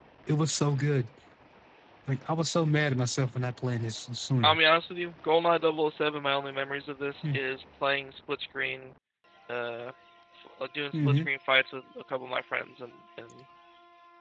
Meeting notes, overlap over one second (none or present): none